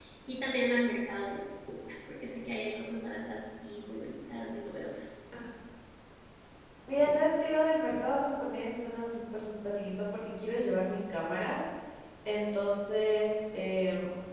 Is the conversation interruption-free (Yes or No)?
Yes